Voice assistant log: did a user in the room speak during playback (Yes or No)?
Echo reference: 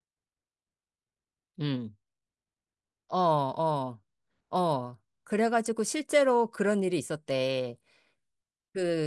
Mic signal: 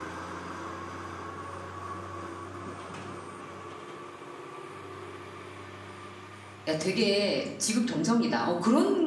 Yes